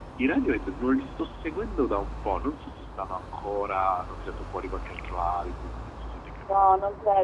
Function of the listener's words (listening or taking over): taking over